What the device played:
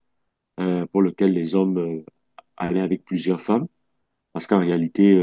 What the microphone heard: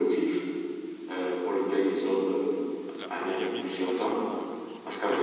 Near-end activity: present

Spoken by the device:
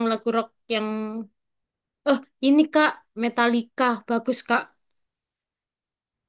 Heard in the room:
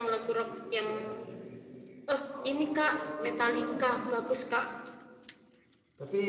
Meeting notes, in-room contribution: present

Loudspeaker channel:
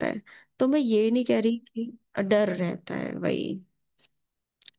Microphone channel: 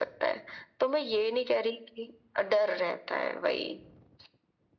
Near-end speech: none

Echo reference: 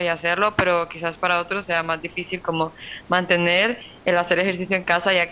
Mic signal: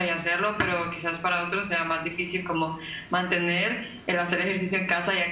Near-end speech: none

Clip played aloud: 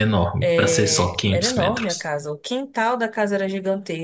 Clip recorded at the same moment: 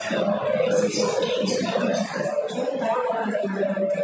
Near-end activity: none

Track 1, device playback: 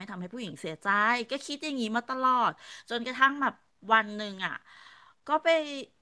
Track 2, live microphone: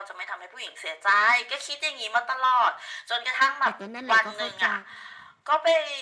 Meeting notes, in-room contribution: present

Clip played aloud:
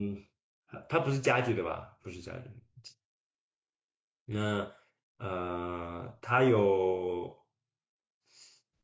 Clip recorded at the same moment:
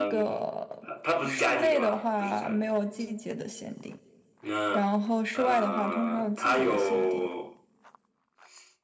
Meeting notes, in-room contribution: present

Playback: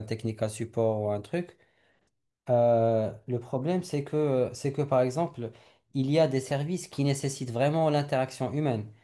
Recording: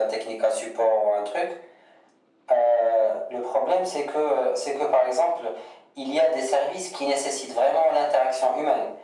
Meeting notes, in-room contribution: none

